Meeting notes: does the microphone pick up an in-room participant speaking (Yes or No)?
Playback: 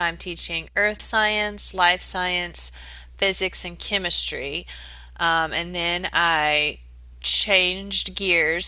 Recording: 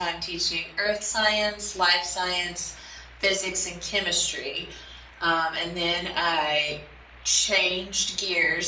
No